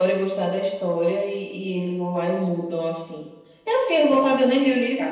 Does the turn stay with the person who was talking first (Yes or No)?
No